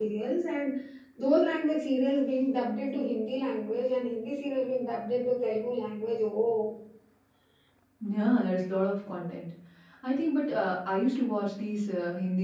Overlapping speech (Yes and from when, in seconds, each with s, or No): No